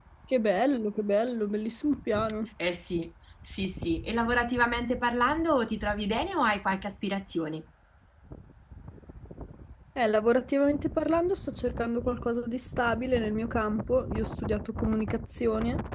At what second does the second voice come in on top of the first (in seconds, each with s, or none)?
none